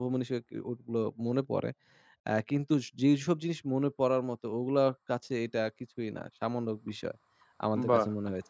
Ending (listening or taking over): listening